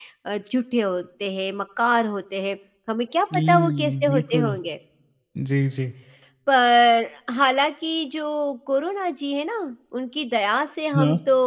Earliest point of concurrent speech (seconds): 3.3 s

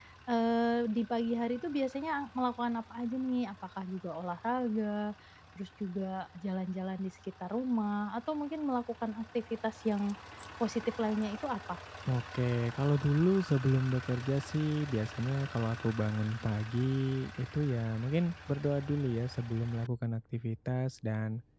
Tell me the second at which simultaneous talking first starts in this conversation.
none

